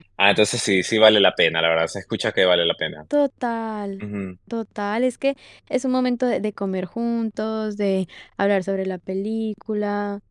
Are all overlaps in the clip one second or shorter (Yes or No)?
Yes